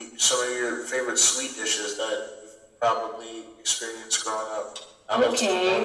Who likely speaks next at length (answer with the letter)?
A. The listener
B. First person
A